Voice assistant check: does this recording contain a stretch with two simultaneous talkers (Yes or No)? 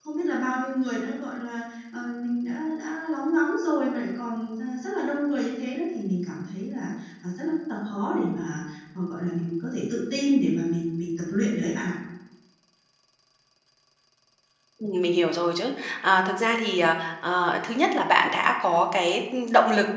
No